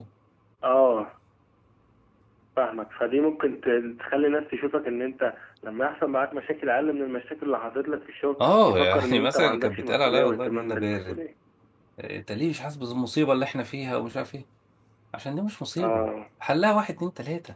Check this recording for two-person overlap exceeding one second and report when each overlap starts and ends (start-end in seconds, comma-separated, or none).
8.4-11.2